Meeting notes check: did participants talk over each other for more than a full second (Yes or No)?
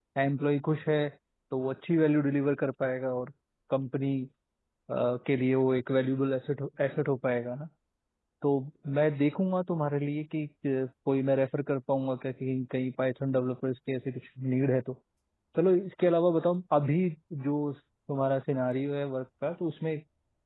No